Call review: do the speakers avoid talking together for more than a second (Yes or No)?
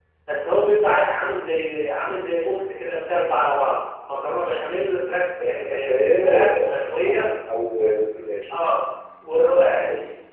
No